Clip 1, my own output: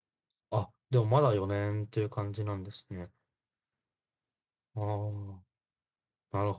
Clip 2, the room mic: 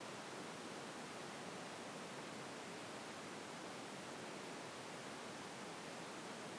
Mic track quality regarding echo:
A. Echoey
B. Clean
B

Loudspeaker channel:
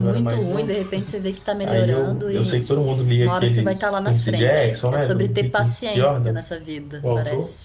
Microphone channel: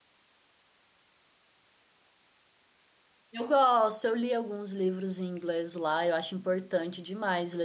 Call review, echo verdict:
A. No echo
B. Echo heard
A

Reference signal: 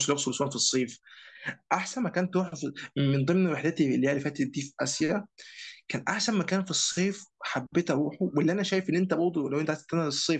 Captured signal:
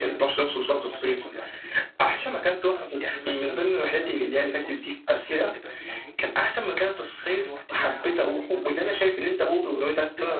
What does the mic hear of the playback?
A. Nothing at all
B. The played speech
B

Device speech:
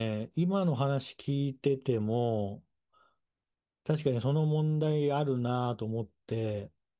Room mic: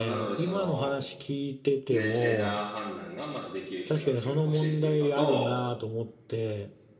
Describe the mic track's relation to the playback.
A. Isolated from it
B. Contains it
B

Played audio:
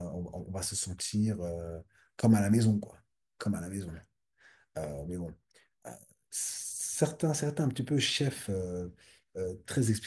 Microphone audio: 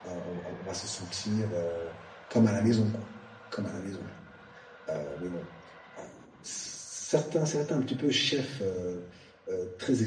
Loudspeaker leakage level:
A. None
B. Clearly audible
B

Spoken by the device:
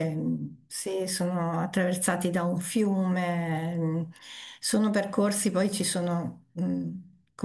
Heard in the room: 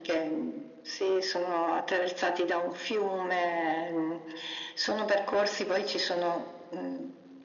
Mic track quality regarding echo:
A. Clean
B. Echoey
B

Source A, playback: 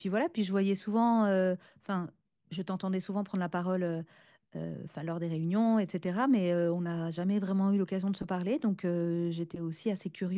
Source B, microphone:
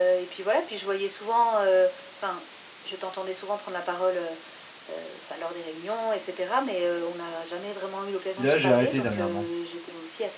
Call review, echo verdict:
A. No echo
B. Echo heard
B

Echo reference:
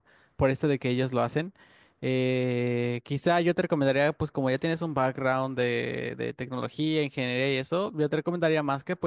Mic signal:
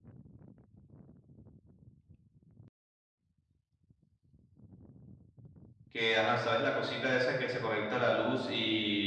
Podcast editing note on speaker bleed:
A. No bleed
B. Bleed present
A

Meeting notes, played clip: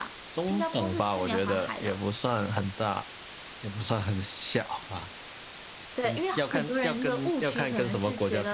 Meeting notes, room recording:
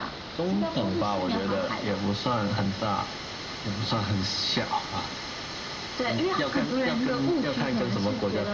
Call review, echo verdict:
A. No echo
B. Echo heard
B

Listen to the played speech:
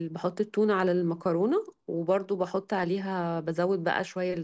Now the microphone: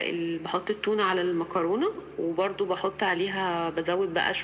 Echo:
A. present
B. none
A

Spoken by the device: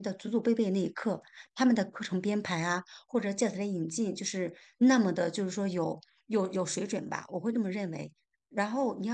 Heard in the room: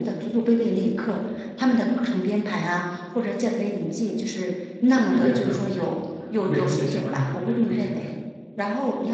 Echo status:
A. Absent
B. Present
B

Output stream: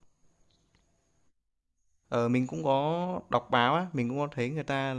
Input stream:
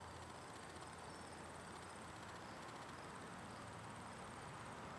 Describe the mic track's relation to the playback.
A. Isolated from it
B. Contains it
A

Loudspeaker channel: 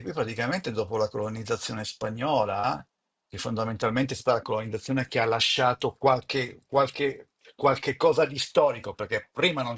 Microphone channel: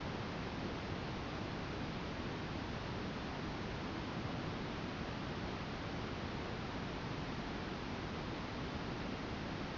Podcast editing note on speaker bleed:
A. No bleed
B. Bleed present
A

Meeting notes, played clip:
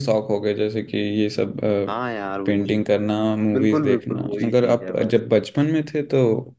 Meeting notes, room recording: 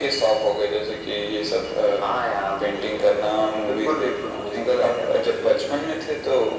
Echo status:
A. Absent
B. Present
B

